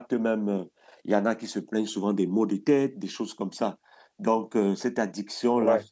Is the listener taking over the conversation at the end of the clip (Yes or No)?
No